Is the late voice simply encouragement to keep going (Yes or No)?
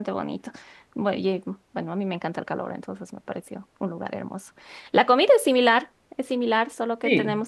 Yes